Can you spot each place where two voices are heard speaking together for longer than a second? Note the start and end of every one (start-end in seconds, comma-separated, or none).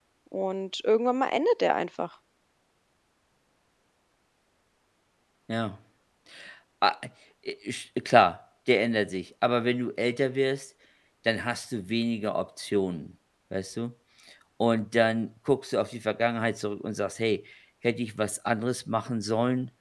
none